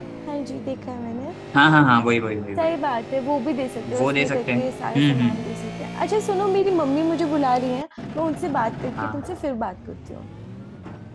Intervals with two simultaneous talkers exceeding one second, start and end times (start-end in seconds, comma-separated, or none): 4.0-5.4